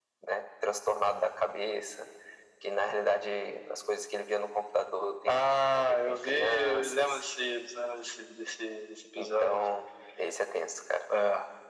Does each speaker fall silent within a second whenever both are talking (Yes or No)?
No